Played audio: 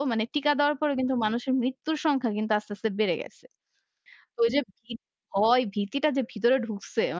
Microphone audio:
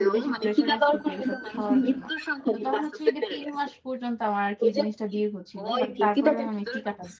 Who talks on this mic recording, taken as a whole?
both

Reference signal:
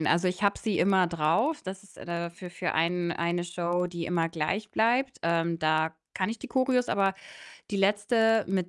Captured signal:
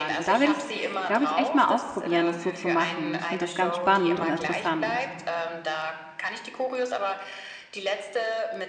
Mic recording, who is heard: both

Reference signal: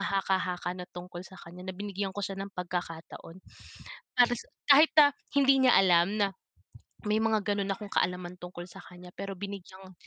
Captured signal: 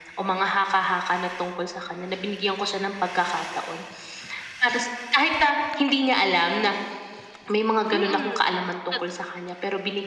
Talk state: both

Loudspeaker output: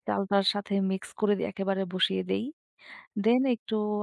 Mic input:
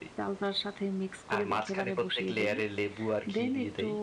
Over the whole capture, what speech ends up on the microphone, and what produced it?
both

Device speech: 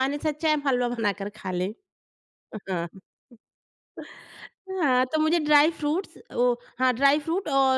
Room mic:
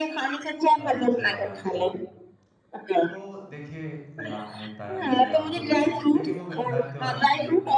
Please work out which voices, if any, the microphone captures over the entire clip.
both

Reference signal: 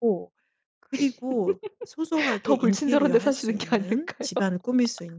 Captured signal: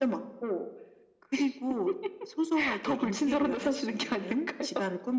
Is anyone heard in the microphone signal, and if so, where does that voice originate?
echo only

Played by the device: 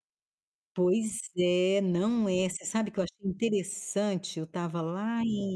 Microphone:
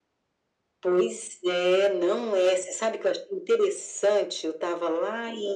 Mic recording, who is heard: echo only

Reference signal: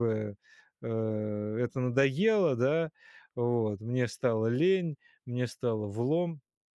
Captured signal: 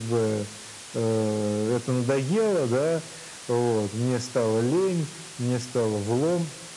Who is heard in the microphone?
echo only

